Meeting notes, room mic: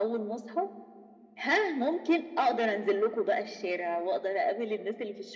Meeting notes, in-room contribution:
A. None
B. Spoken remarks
A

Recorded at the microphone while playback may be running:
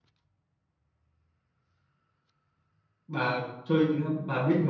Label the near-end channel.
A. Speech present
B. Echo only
A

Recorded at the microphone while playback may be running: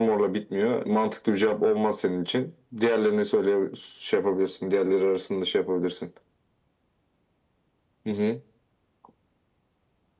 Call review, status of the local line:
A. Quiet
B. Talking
A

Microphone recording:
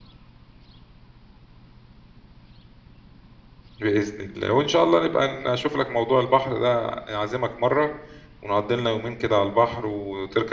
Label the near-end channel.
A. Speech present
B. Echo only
A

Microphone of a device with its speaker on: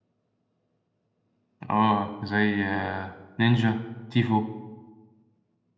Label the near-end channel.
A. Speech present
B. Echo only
A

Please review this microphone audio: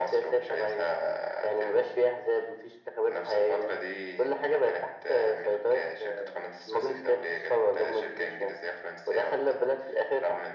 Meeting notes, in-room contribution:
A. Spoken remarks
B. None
B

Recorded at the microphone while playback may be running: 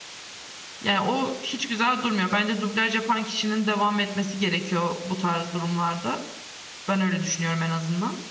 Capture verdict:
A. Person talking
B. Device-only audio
A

